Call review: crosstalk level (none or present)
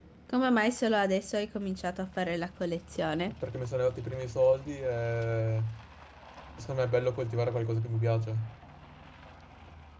none